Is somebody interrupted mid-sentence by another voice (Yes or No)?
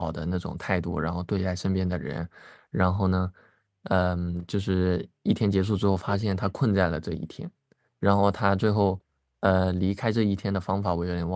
No